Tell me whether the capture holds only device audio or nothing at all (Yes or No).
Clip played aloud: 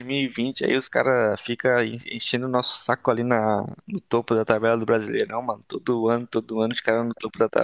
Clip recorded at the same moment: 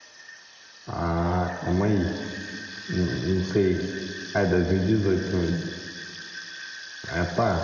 No